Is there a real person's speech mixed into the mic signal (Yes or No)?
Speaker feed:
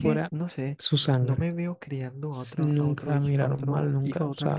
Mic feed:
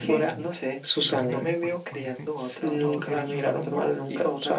Yes